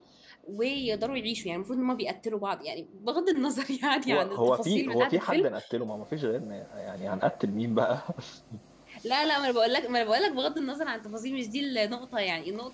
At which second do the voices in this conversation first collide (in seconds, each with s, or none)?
4.1 s